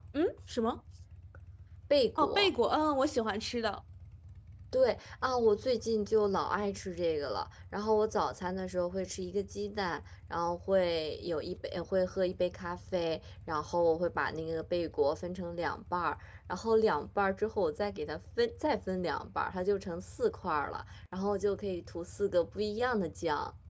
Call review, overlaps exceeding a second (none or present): none